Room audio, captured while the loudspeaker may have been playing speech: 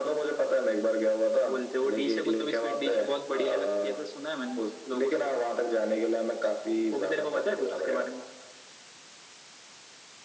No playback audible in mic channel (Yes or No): No